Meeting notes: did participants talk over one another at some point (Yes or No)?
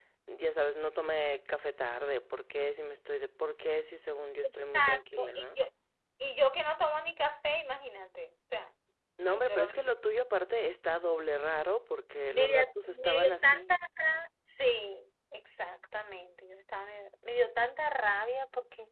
Yes